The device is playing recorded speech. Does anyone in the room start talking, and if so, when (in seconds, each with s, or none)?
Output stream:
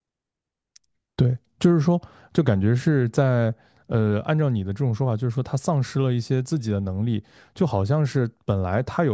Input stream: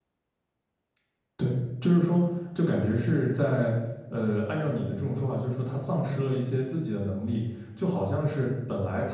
none